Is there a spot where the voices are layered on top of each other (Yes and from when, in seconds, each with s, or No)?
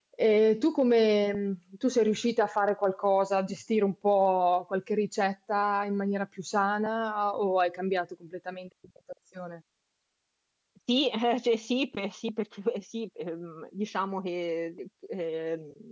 No